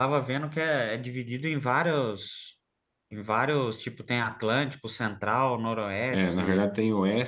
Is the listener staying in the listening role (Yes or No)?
No